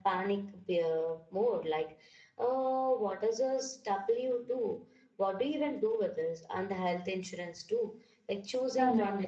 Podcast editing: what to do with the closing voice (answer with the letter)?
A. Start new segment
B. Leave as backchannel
A